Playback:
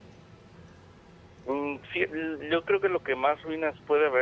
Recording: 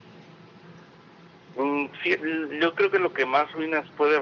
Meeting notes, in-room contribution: none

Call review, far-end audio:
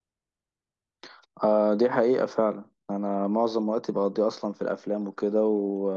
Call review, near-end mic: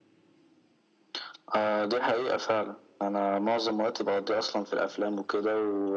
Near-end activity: none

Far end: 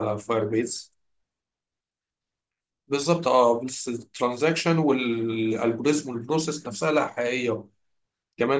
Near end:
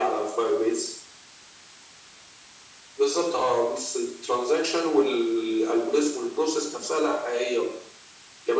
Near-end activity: none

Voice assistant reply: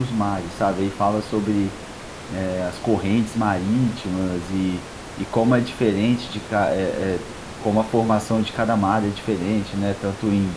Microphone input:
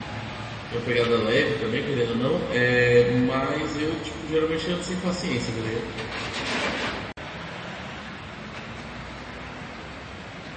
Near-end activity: present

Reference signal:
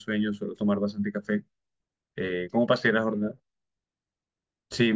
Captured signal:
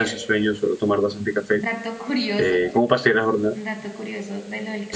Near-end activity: present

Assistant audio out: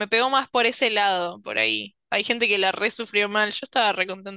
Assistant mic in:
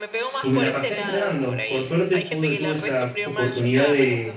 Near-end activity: present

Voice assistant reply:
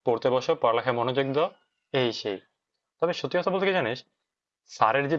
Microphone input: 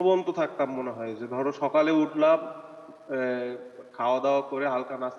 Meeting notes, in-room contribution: present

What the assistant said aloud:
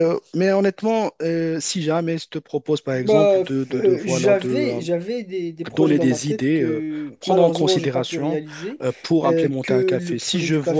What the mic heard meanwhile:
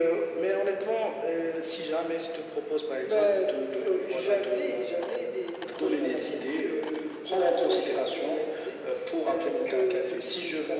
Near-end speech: none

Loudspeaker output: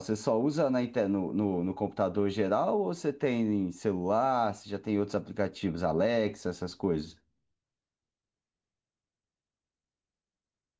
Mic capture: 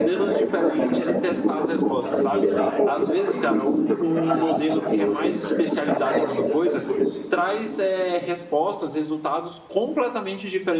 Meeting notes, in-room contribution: present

